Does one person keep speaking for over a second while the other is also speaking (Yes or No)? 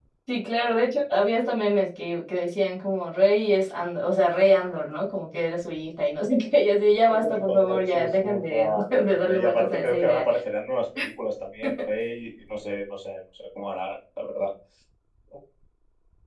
Yes